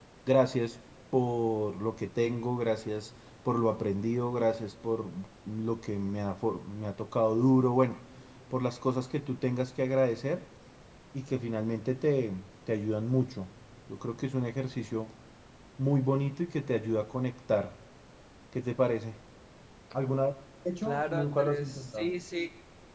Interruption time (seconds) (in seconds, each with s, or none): 20.8 s